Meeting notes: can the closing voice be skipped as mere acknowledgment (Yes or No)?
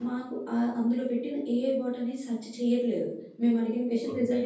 Yes